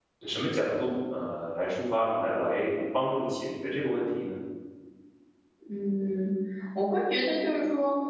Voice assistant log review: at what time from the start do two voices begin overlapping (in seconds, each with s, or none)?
none